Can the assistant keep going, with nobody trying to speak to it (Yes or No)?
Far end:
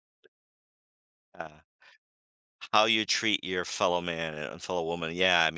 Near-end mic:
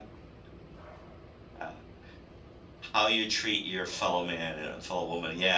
Yes